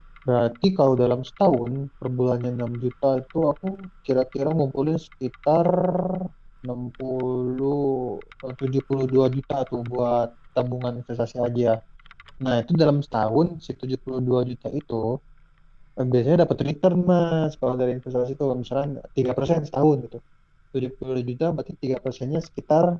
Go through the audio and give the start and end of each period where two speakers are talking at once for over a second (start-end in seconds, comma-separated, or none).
none